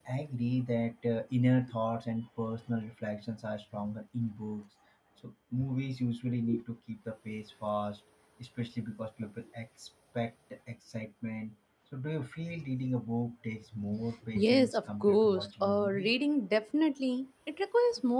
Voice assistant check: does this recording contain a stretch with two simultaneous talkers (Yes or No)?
Yes